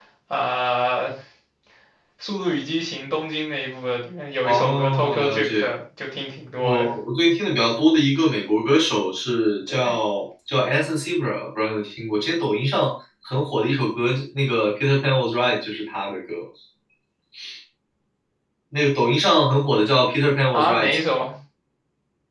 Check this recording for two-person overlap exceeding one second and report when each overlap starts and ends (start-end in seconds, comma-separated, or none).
4.4-5.7